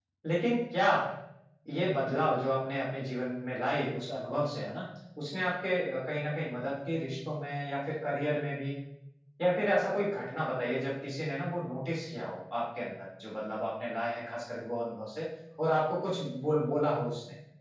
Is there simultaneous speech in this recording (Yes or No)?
No